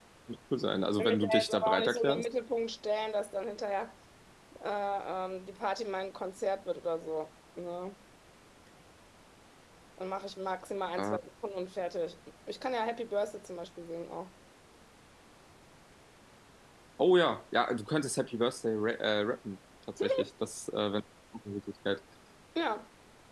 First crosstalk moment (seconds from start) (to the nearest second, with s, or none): 1 s